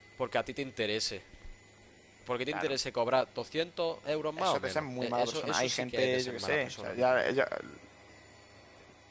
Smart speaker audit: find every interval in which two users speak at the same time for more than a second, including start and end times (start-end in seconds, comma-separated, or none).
4.4-7.3